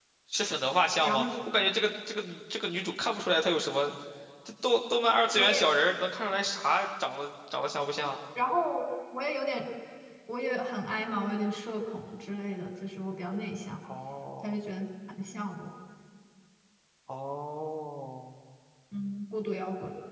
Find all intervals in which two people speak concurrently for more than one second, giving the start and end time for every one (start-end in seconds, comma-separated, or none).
none